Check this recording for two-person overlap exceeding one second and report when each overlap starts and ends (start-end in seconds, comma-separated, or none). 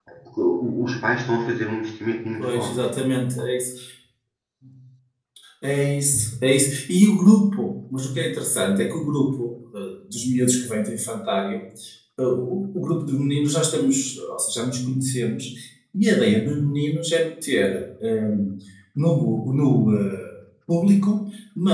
none